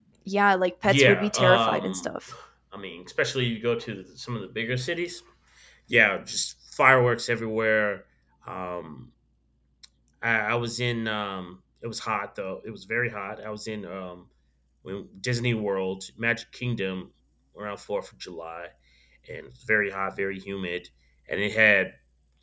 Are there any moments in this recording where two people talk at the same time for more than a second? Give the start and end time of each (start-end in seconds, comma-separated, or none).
0.8-2.1